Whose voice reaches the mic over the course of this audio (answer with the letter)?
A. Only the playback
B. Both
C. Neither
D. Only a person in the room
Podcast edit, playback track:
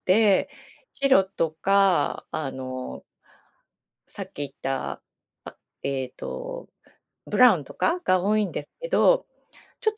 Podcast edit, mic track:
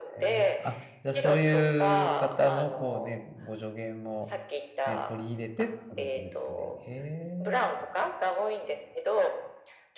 B